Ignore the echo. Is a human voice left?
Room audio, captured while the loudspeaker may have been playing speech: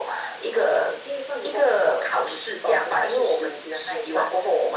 No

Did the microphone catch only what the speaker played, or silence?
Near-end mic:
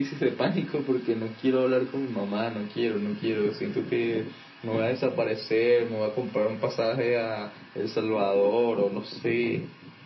Yes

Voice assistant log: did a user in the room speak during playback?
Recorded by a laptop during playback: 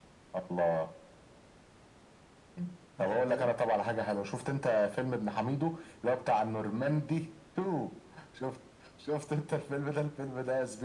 Yes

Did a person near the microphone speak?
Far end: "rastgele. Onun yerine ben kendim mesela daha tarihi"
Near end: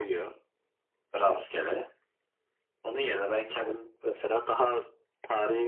No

